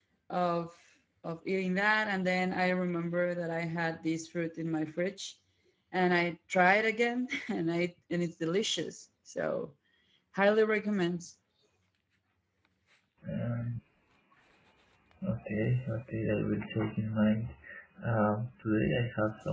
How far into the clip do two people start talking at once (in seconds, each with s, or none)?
none